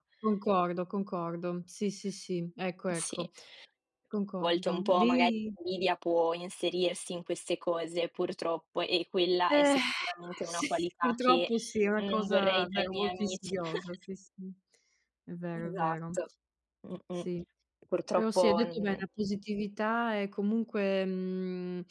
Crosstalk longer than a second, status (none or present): present